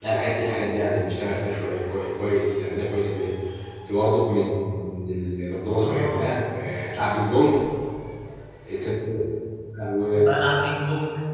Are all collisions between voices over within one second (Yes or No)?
Yes